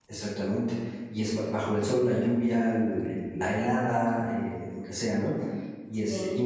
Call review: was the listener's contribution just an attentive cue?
Yes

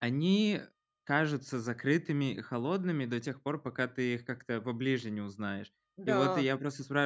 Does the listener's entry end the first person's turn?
No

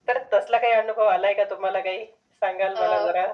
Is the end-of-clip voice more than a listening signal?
Yes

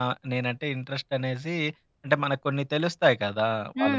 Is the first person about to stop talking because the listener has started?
Yes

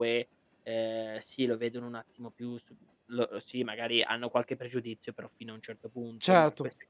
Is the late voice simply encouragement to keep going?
Yes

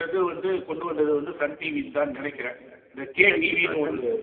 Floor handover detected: Yes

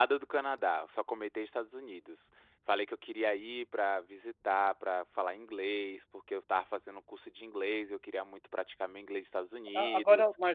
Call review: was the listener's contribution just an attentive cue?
No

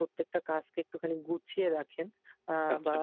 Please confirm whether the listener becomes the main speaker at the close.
No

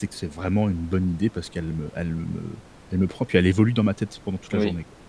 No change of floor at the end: No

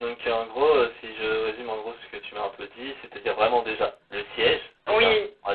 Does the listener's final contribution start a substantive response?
No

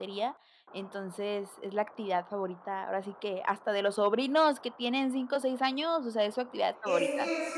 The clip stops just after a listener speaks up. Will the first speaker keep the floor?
No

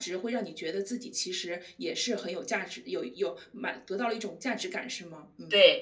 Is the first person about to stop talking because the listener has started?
Yes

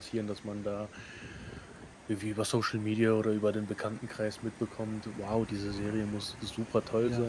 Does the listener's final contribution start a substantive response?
No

